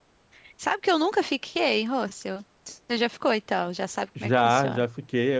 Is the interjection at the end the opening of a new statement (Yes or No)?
Yes